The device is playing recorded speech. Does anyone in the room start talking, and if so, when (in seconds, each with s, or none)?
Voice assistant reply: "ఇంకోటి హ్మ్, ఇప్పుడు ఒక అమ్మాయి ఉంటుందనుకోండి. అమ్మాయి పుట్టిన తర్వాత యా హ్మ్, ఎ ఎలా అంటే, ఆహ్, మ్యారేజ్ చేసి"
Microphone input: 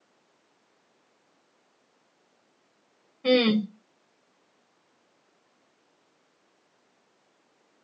3.3 s